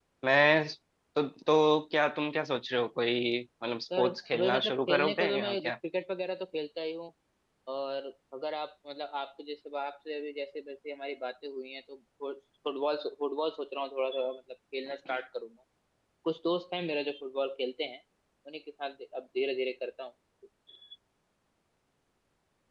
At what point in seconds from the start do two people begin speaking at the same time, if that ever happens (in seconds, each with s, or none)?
3.9 s